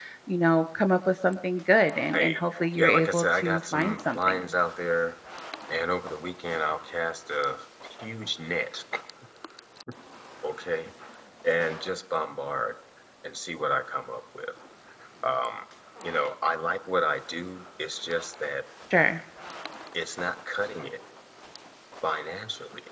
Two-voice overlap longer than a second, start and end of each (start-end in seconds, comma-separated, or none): 2.1-4.4